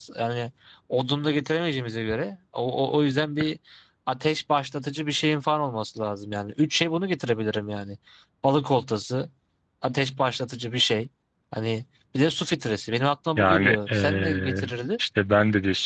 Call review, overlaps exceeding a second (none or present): present